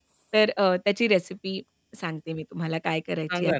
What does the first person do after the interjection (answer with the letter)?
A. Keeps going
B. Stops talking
B